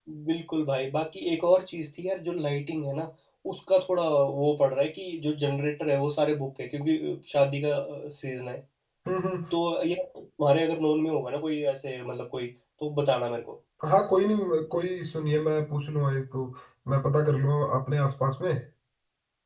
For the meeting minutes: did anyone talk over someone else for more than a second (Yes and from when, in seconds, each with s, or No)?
No